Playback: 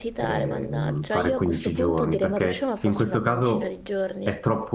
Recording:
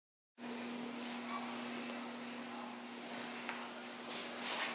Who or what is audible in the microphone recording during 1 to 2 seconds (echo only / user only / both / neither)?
neither